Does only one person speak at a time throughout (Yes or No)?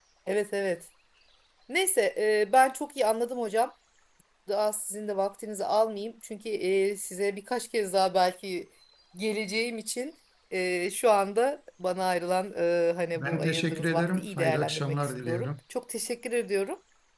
No